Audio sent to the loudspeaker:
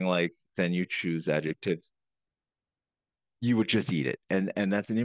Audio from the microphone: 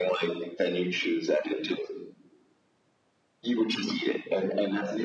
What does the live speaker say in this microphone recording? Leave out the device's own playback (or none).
none